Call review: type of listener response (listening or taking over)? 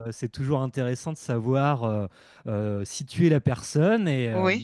listening